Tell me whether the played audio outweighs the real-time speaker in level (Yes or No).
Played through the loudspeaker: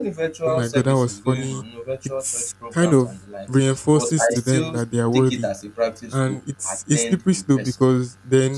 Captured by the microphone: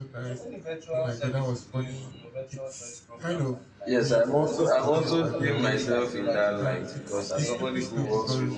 No